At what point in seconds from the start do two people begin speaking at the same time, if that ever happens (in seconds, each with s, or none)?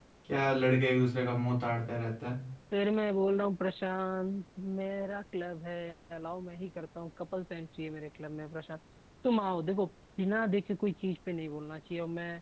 none